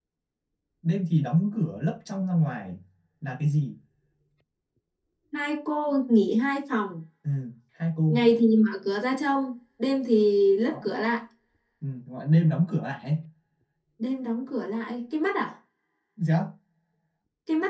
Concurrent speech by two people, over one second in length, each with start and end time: none

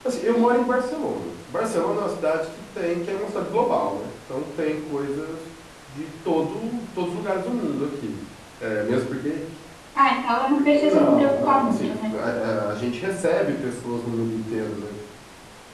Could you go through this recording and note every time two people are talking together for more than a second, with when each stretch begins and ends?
10.8-12.1

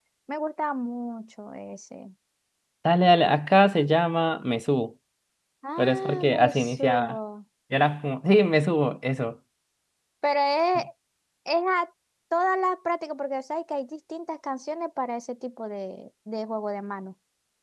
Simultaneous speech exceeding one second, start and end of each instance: 5.8-7.2

